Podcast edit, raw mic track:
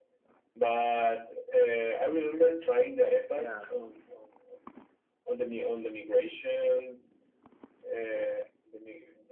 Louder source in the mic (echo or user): echo